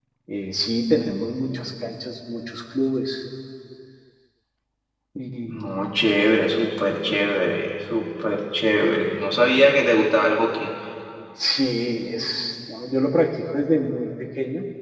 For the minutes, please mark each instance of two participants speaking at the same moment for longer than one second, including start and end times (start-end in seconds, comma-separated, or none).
none